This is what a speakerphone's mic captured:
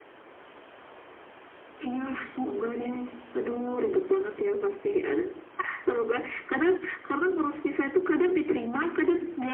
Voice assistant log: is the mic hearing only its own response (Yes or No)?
Yes